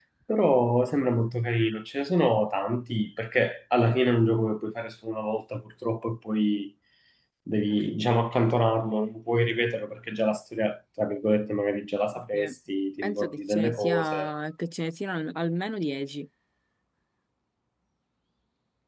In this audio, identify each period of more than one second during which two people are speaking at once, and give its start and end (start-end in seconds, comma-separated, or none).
13.0-14.3